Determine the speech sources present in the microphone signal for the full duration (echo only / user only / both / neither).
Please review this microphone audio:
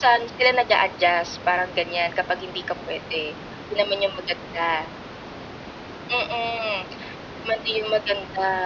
echo only